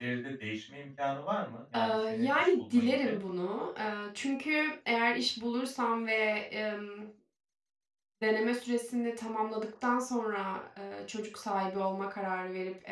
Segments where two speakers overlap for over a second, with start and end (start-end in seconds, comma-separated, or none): 1.7-3.1